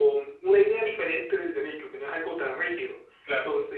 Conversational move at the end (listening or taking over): listening